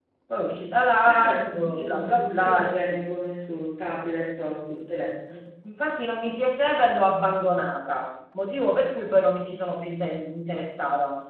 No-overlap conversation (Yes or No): No